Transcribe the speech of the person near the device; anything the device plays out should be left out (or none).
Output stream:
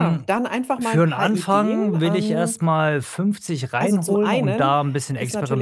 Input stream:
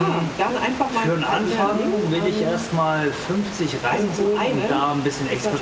Ja.